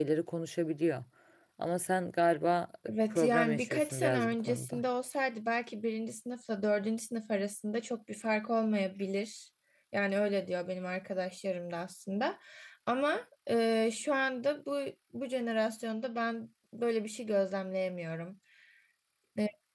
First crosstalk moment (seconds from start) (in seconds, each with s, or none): 2.9 s